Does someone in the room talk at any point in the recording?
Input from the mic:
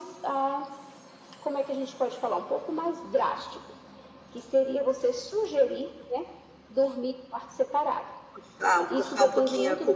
Yes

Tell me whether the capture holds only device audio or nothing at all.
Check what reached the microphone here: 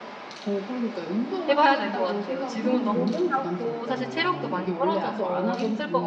No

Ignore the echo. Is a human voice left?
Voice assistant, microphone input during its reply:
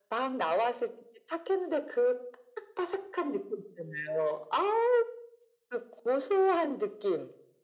No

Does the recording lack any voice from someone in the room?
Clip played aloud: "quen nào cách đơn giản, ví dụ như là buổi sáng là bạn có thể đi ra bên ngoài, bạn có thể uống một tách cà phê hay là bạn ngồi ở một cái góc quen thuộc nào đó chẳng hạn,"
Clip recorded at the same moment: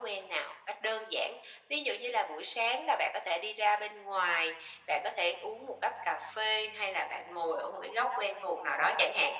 Yes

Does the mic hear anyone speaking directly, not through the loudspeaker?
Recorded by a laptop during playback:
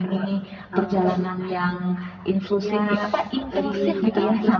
Yes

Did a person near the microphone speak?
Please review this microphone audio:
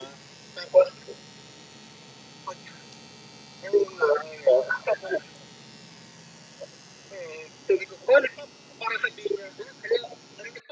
No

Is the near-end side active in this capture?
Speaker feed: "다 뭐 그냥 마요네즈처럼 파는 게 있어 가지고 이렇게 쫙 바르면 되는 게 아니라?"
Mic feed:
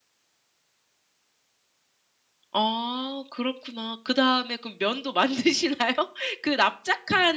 Yes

